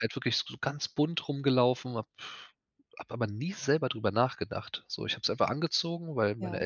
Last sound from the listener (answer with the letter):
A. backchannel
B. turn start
A